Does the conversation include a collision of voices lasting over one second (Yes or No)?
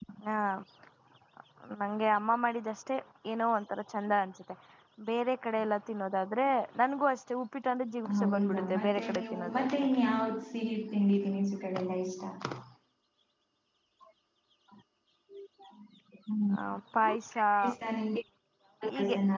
Yes